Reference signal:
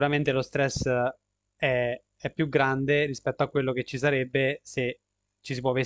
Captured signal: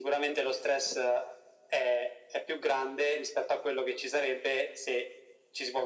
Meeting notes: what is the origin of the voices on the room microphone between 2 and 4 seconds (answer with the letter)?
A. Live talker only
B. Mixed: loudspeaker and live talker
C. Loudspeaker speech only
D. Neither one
C